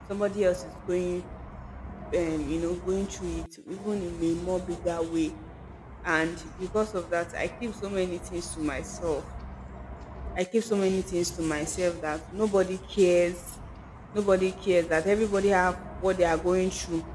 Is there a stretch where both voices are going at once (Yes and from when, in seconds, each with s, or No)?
No